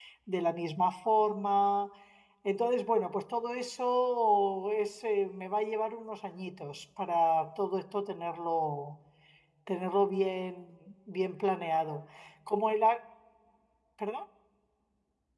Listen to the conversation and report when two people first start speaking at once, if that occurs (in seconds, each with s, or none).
none